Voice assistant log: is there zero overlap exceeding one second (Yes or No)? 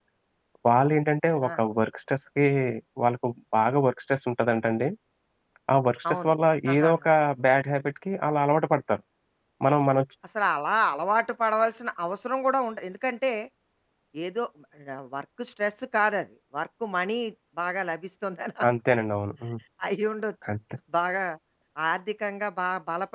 Yes